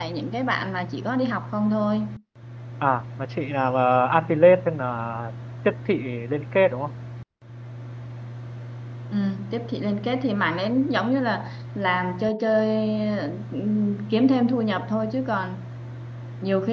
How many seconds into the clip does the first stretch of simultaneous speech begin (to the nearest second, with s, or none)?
none